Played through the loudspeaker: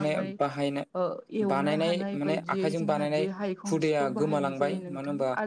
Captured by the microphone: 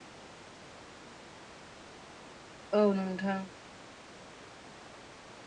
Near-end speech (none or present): present